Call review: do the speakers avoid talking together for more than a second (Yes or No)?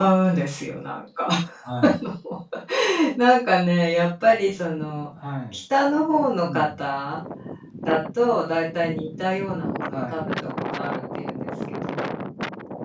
Yes